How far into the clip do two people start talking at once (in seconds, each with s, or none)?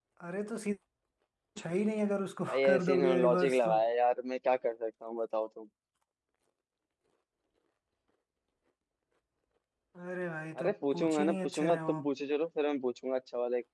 2.5 s